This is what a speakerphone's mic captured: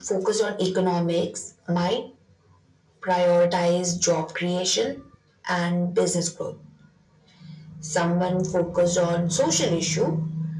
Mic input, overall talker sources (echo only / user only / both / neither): echo only